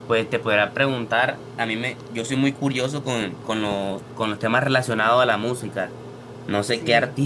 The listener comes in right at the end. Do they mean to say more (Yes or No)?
No